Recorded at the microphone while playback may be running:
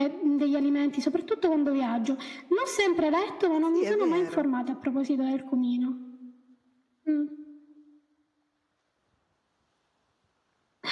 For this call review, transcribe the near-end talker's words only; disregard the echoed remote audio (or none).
sì è vero,